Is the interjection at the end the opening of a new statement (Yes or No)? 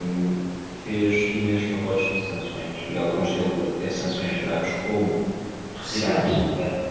No